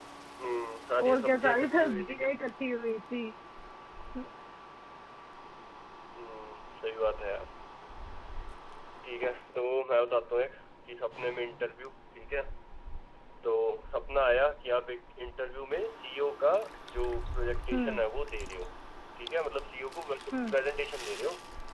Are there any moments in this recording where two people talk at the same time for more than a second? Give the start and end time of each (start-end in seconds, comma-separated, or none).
1.1-2.3